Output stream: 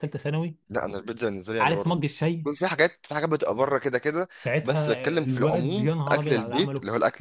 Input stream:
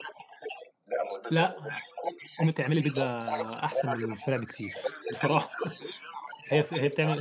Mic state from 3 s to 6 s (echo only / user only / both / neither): both